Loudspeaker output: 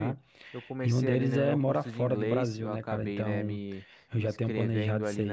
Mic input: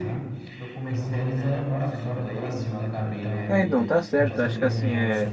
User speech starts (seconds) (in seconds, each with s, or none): 3.5 s